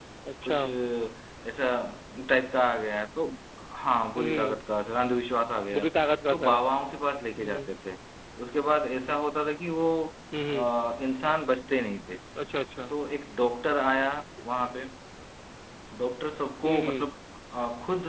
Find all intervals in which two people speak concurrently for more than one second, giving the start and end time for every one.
none

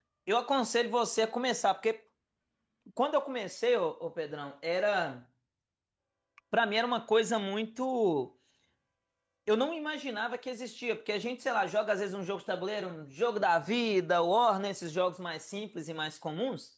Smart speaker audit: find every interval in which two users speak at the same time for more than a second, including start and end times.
none

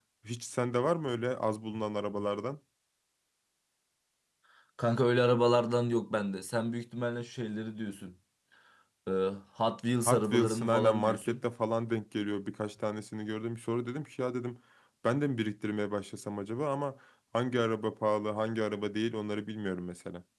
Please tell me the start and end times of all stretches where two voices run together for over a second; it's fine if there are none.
10.1-11.4

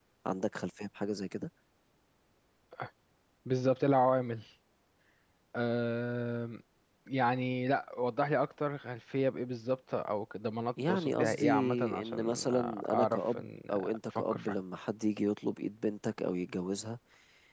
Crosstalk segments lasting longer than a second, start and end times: 10.9-14.6

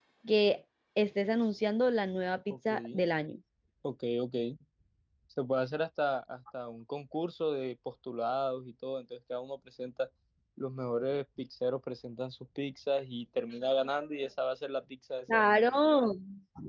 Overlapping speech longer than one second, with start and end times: none

